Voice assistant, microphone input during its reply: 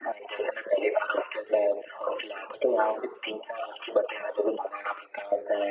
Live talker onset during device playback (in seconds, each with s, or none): none